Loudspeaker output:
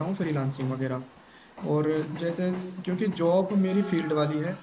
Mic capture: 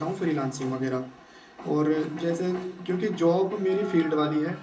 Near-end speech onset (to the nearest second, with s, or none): none